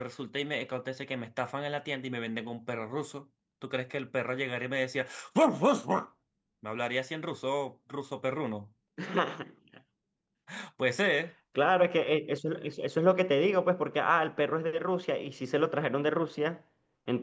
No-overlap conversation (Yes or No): Yes